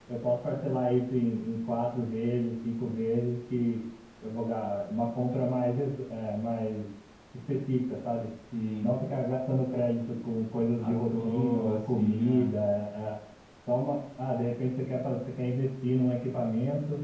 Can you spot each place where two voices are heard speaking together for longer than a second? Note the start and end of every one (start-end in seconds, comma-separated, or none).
10.8-12.6